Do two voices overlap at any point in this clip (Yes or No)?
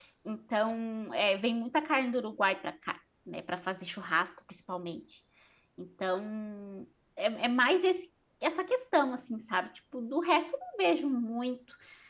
No